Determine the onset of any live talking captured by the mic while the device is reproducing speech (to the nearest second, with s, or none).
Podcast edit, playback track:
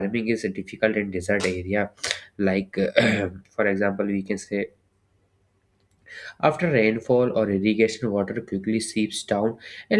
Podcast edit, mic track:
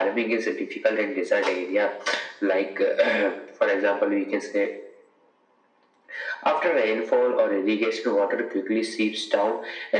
none